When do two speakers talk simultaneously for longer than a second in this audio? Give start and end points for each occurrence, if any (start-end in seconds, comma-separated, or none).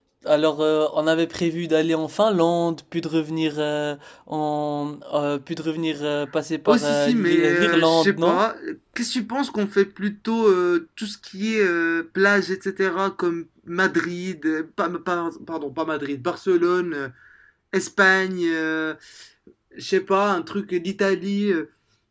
6.7-8.4